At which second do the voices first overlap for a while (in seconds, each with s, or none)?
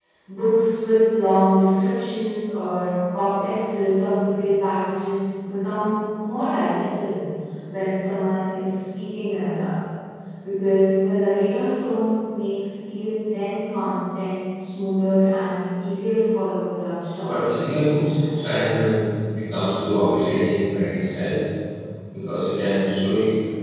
17.2 s